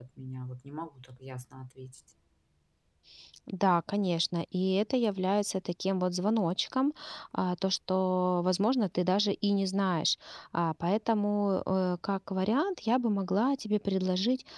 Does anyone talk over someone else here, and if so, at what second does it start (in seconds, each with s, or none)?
none